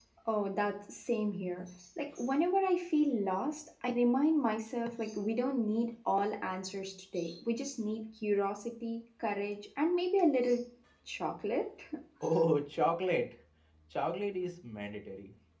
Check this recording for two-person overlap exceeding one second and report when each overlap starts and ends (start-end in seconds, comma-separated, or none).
none